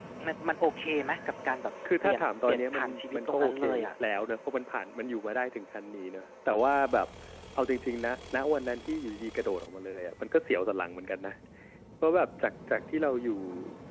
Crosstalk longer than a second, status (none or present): present